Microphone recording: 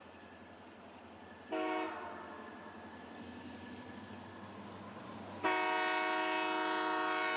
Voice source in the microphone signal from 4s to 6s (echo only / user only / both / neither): neither